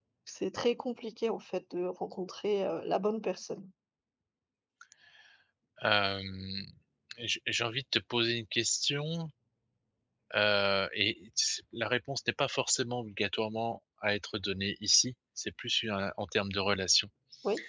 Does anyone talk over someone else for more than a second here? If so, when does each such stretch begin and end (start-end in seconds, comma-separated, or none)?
none